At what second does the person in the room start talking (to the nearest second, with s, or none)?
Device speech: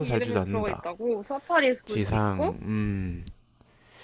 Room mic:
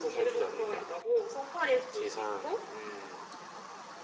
none